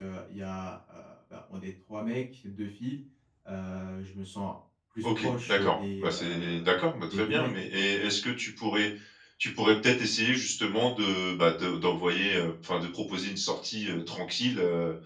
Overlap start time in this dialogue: 5 s

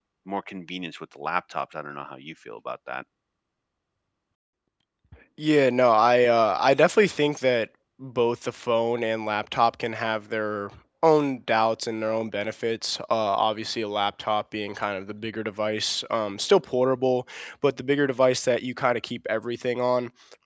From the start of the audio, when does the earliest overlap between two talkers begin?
none

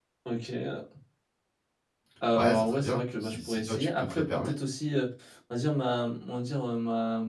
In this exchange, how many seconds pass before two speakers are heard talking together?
2 s

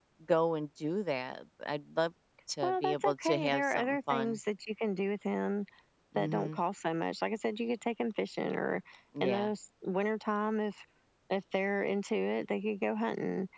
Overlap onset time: 3 s

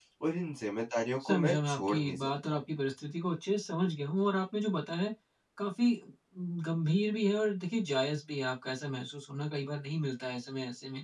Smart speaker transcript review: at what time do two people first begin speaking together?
1 s

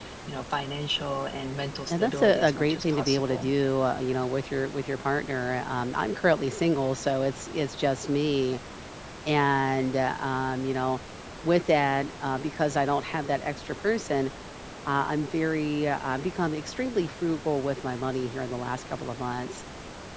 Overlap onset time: 2 s

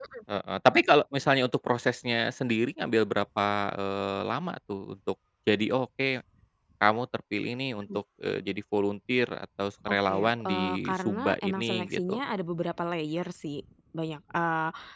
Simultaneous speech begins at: 10 s

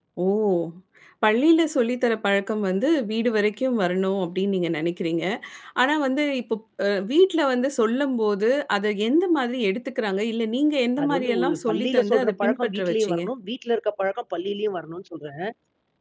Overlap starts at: 11 s

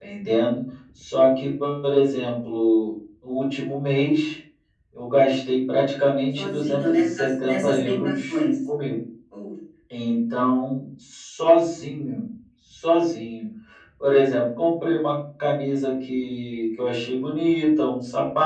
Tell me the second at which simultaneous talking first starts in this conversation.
6 s

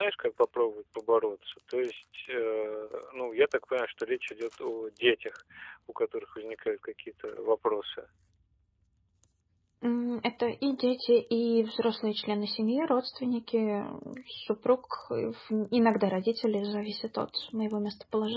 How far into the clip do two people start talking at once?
none

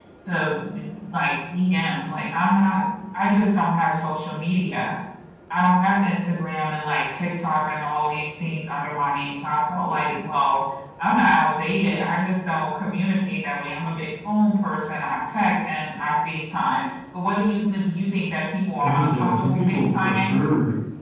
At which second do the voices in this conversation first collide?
19 s

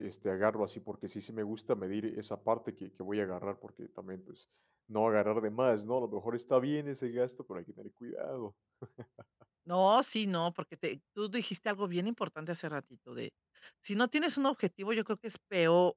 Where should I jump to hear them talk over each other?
none

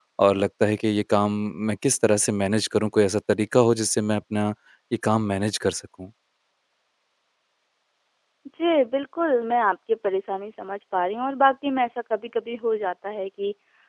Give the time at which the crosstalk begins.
none

